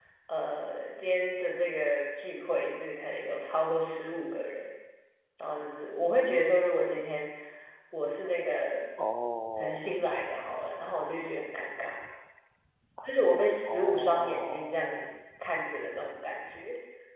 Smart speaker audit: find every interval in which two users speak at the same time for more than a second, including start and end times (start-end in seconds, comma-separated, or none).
13.6-14.8